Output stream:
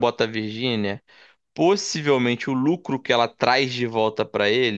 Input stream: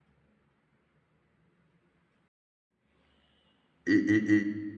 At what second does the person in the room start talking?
4 s

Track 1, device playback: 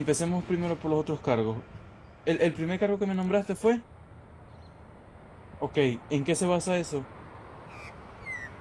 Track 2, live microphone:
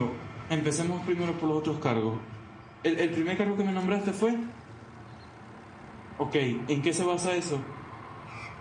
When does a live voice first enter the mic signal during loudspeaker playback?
none

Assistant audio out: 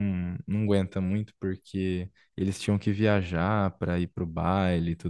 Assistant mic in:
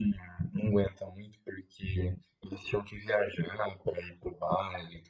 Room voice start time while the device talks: none

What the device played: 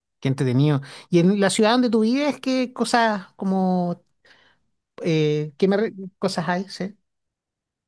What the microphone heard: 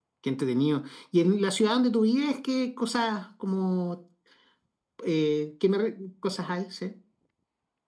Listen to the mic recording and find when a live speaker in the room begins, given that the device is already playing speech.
none

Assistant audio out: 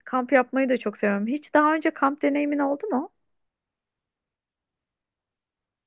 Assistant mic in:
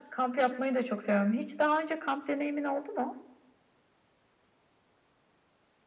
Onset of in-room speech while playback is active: none

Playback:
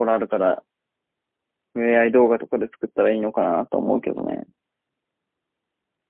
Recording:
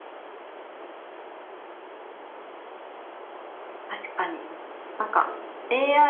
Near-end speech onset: 4 s

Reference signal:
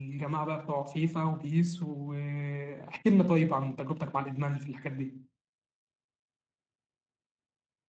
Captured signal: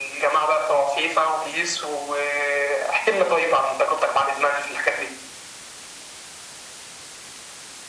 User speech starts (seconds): none

